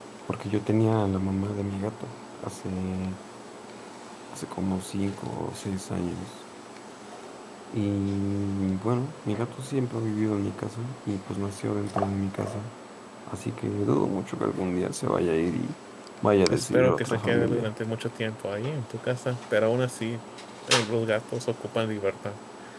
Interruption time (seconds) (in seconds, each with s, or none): 16.5 s